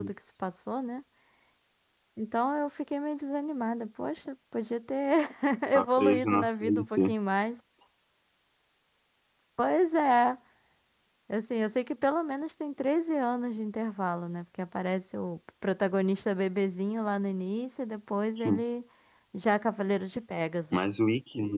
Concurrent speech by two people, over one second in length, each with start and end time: 5.7-7.1

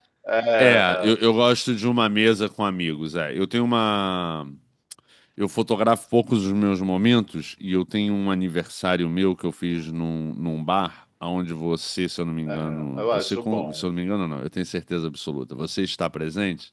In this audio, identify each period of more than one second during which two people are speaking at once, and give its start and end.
12.5-13.9

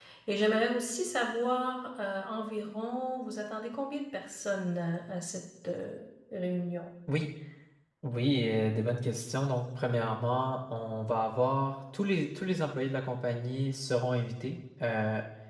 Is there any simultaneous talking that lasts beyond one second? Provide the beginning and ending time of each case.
none

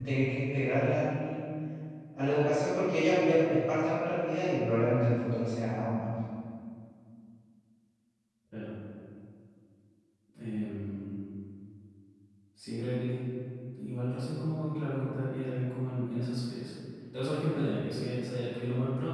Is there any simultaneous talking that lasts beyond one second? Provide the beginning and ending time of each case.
none

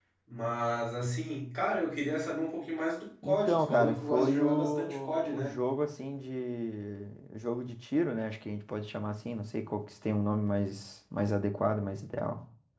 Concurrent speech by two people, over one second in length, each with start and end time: 3.2-5.5

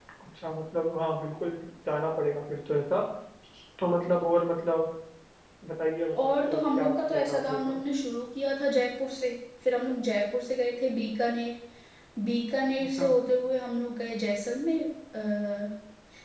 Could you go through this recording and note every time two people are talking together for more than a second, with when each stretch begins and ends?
6.2-7.8

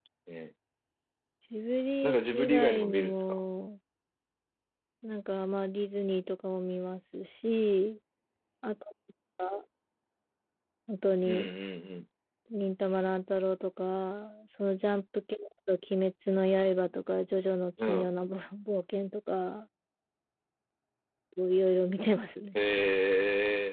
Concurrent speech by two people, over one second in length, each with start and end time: 2.0-3.4

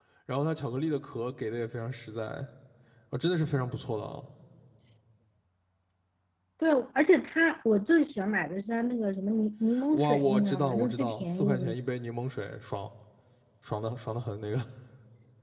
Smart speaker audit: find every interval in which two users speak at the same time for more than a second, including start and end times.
9.9-11.7

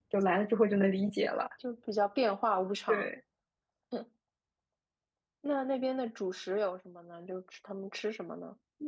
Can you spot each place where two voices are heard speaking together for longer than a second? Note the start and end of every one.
none

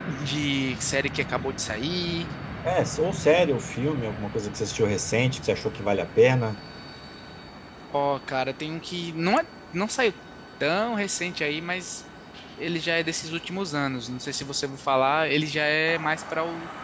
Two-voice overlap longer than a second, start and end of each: none

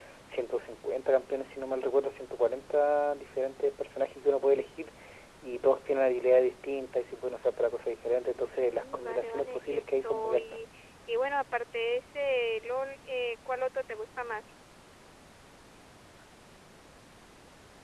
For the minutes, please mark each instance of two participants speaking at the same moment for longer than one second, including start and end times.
8.6-10.6

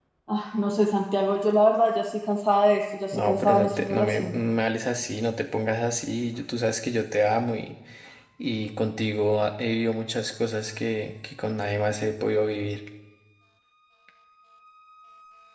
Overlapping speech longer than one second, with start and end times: 3.1-4.3

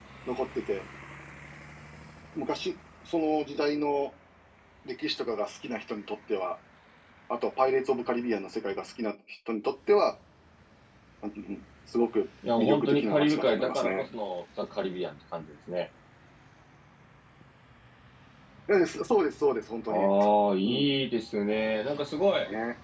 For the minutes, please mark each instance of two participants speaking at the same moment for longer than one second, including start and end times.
12.6-14.1

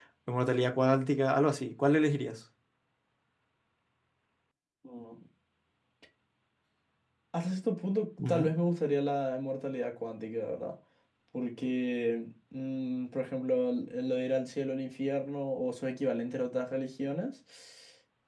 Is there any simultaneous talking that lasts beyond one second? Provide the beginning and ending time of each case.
none

